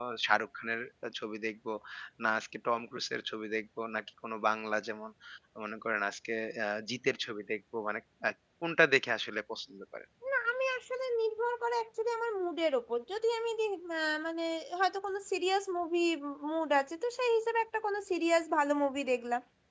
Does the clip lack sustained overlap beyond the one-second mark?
Yes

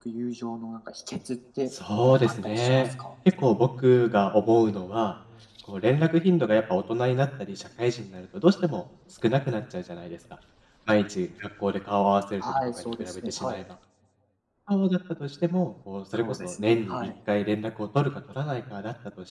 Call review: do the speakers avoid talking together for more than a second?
No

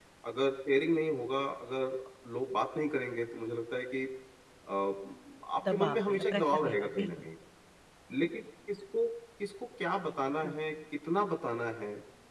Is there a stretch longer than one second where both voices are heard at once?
Yes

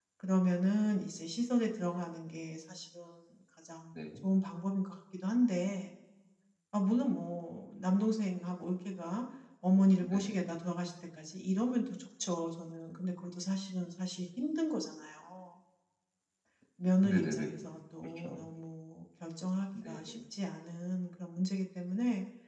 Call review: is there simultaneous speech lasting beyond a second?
No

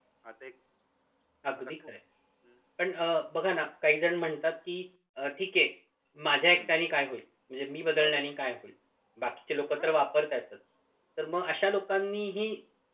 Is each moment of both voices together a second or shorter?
Yes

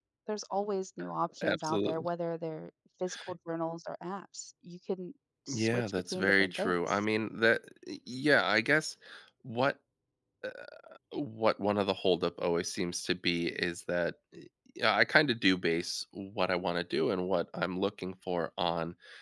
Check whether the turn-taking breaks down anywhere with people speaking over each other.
Yes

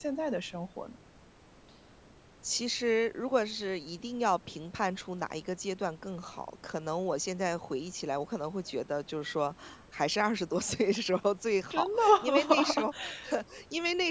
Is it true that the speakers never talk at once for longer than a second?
No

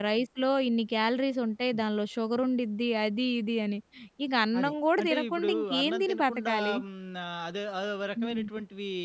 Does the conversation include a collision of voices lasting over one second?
Yes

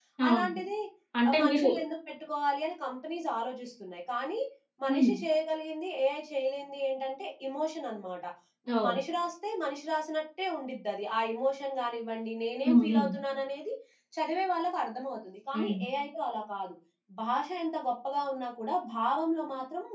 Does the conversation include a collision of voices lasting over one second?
No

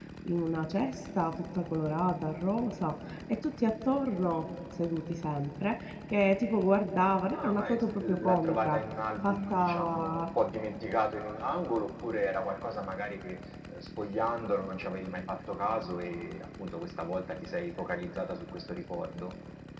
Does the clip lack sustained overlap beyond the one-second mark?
No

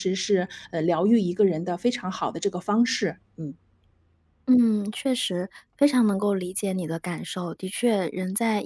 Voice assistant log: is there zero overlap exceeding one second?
Yes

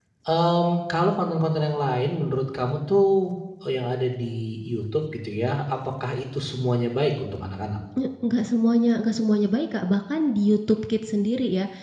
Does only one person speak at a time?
Yes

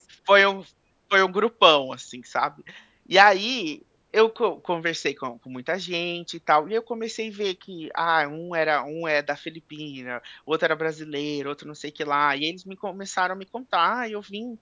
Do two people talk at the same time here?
No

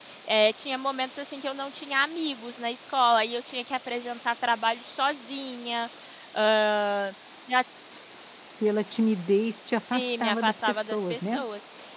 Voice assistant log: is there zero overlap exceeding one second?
No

